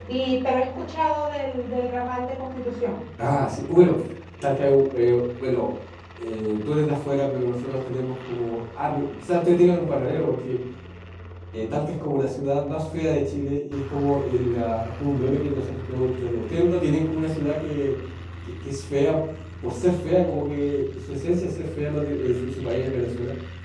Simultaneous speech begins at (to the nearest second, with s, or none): none